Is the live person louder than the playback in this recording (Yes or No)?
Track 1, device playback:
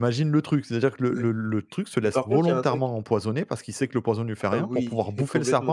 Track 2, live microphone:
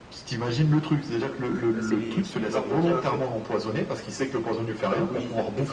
No